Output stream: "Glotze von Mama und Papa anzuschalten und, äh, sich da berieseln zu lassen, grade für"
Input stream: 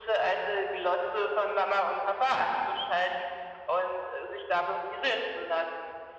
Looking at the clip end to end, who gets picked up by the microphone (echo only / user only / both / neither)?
echo only